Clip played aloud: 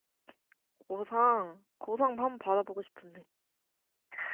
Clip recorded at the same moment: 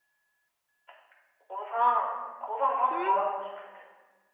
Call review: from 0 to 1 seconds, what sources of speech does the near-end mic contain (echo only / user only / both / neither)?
neither